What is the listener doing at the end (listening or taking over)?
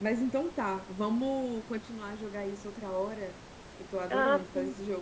taking over